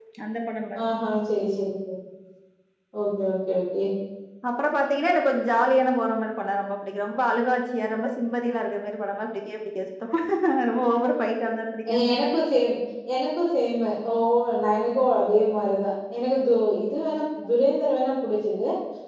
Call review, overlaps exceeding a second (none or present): none